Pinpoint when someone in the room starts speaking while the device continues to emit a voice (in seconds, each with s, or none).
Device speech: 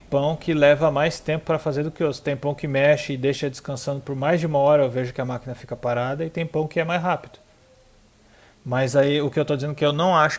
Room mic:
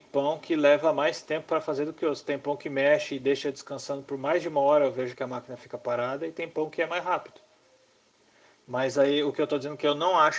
none